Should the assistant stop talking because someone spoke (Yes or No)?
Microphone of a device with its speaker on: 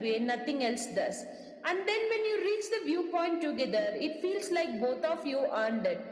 No